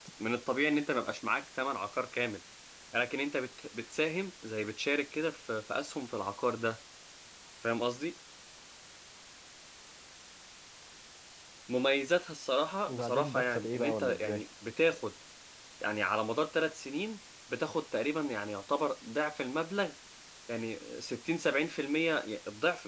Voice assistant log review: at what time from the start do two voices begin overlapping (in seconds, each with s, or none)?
12.9 s